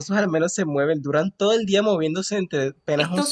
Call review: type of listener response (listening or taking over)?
listening